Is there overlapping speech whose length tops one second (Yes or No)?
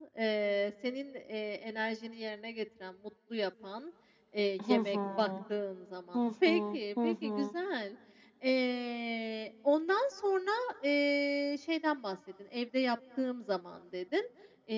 Yes